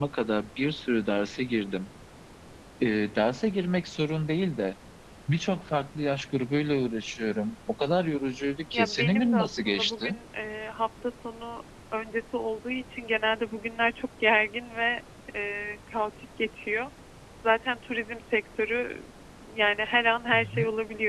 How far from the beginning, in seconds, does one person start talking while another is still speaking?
8.7 s

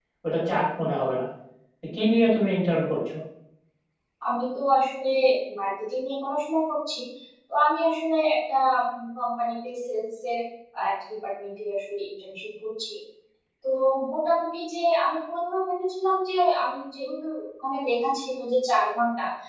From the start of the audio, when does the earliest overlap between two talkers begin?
none

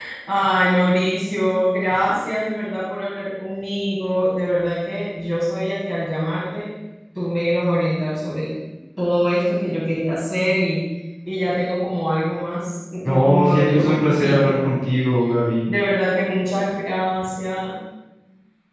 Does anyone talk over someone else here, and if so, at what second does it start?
13.1 s

